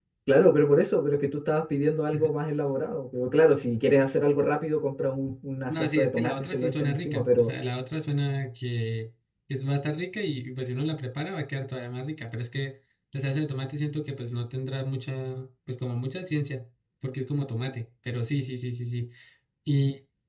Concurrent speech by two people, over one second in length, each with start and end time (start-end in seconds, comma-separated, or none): 5.7-7.5